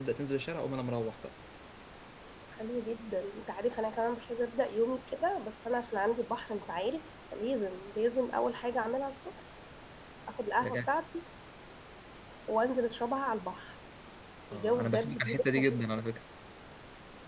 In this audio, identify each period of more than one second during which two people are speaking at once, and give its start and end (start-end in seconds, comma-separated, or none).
14.5-15.8